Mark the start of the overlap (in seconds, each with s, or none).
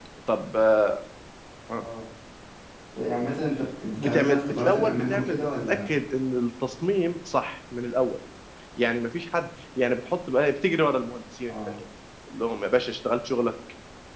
4.0 s